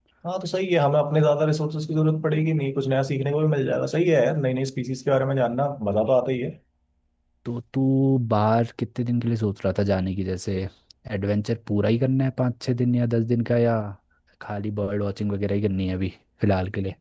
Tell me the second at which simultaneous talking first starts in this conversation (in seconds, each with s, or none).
none